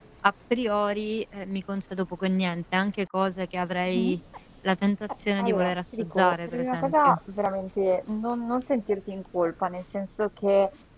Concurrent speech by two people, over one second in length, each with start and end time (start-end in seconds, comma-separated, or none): 5.4-7.2